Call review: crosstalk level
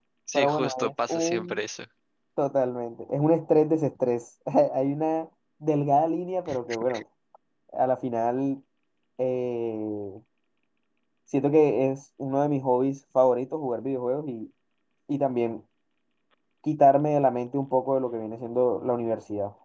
present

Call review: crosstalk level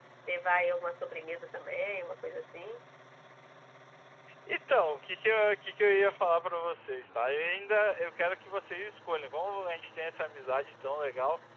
none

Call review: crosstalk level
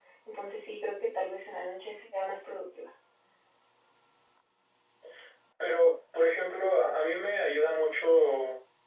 none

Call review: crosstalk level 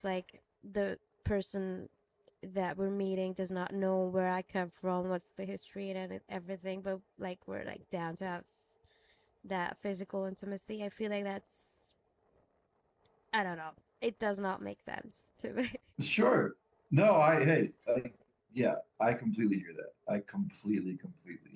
none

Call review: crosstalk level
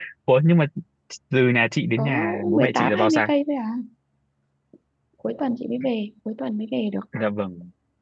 present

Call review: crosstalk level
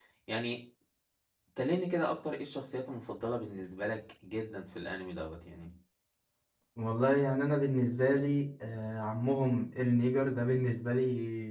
none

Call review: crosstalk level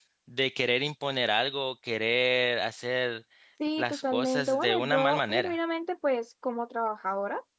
present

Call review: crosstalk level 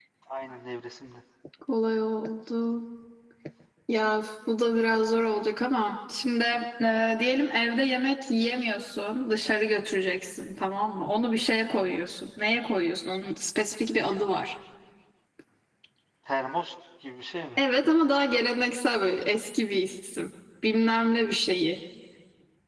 none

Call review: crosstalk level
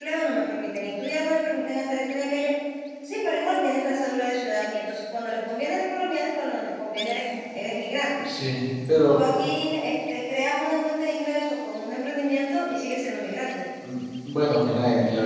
none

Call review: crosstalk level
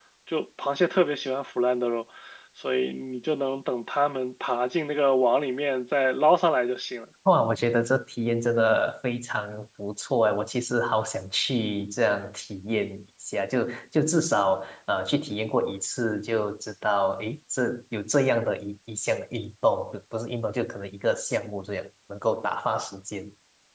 none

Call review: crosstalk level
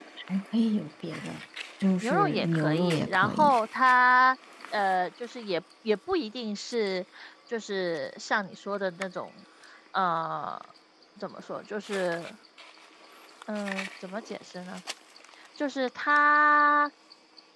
present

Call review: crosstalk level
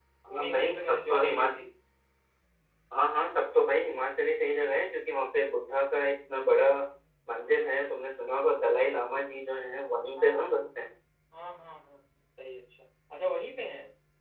present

